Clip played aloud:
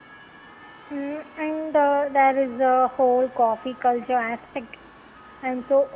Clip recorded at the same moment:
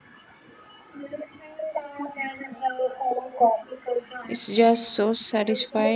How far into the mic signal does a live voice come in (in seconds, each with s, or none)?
4.3 s